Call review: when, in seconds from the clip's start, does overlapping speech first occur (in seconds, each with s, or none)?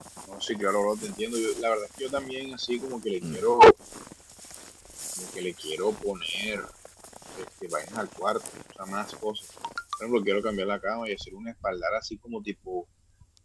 none